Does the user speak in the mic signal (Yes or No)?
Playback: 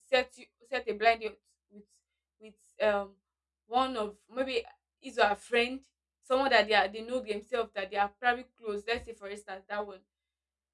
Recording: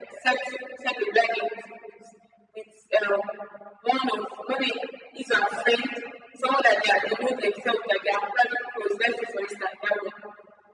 No